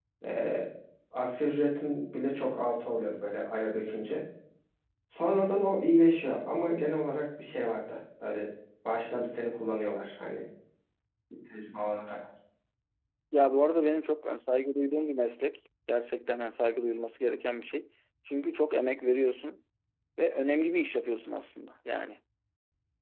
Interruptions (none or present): none